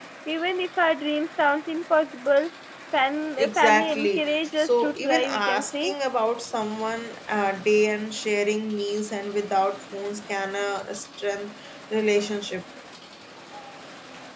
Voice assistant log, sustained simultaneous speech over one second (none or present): present